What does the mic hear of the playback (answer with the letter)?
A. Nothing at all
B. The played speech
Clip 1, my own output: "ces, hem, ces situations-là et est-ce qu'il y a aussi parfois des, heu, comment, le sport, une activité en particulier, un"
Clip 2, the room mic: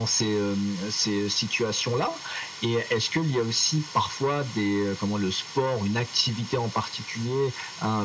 B